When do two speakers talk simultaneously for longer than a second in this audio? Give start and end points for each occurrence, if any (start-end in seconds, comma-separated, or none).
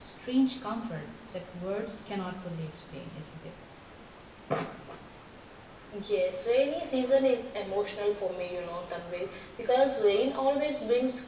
none